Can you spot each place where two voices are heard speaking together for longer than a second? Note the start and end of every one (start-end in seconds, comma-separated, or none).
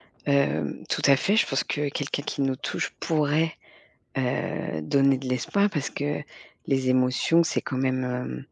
none